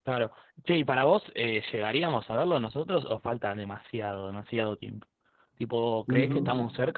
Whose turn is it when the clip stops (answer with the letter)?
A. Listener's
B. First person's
B